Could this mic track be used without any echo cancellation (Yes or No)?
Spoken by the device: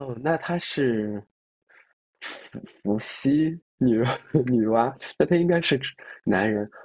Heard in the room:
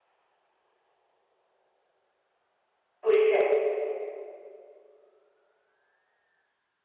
Yes